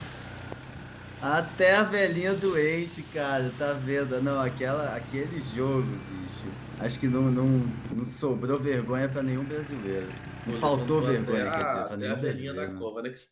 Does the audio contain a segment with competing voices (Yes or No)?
Yes